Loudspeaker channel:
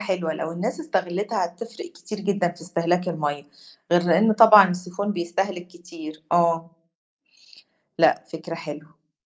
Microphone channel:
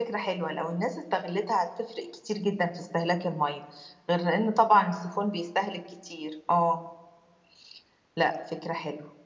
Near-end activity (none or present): none